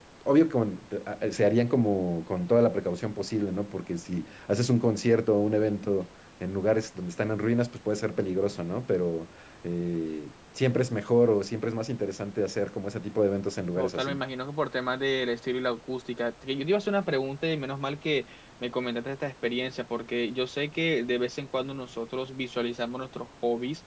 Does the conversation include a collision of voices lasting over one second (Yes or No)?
No